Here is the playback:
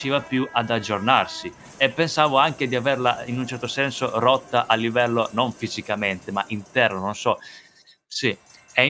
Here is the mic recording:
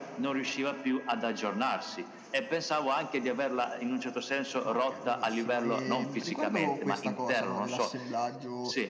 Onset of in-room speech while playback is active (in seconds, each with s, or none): 4.6 s